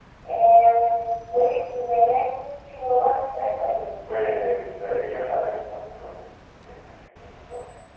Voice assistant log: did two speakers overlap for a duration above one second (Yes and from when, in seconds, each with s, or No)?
No